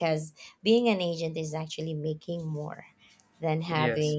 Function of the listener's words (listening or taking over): listening